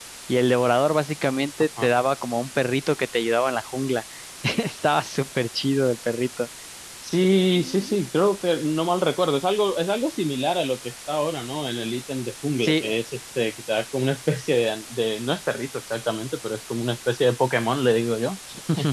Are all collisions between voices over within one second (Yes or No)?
Yes